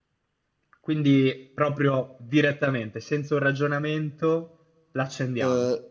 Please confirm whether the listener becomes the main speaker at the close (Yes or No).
Yes